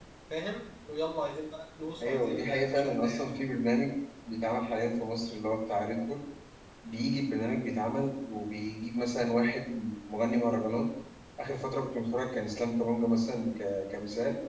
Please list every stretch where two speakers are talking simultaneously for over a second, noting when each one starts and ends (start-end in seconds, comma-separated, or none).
2.0-3.2